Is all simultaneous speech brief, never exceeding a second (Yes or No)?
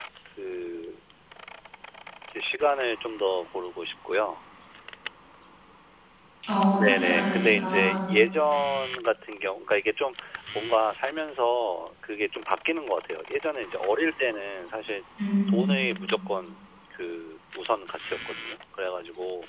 No